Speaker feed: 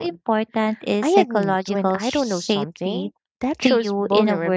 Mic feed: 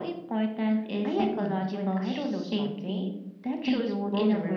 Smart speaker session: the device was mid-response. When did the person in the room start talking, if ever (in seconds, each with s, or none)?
none